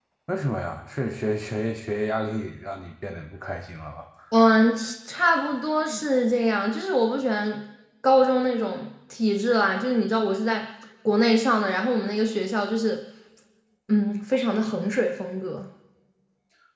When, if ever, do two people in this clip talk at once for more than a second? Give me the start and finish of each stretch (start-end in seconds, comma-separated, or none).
none